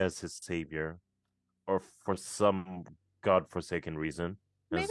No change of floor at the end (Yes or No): No